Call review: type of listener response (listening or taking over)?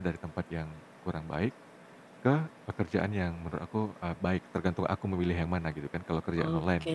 taking over